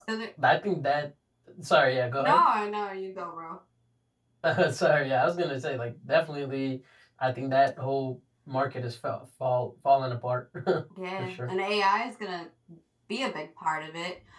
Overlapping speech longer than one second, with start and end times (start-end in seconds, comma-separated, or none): none